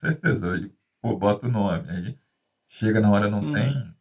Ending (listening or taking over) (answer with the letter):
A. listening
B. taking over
A